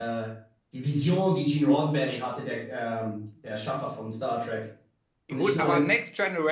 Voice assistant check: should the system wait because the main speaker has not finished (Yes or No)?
No